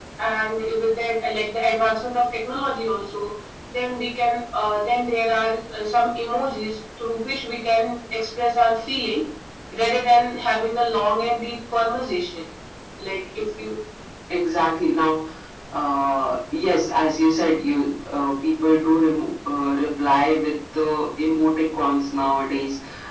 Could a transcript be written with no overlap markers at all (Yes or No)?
Yes